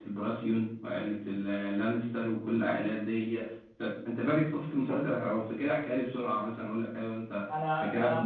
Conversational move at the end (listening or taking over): taking over